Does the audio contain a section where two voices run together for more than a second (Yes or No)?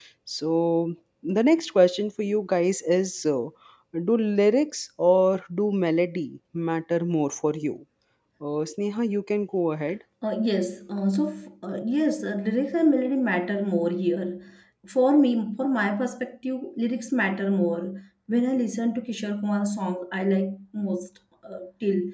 No